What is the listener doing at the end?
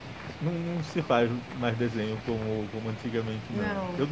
listening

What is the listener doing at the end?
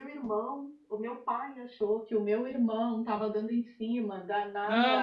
taking over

